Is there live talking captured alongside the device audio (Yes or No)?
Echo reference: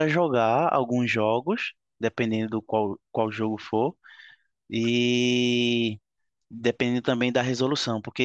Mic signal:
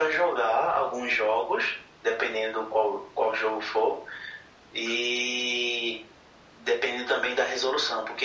No